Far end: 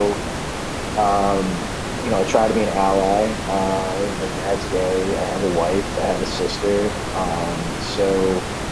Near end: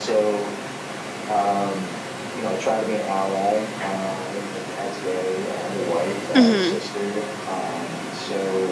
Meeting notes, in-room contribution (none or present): present